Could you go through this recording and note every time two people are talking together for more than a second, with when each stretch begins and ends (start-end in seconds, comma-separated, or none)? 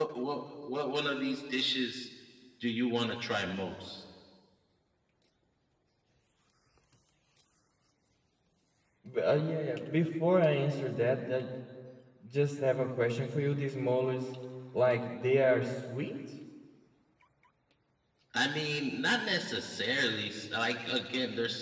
none